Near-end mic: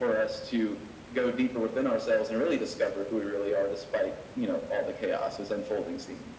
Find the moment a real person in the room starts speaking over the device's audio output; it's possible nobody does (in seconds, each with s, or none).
none